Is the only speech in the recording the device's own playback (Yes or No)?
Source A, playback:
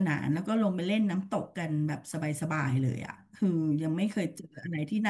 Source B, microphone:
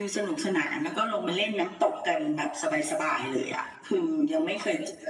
Yes